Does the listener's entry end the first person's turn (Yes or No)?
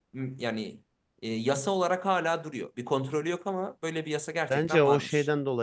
Yes